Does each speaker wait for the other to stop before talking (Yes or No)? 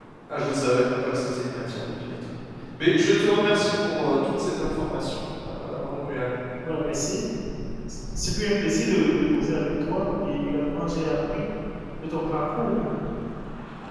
Yes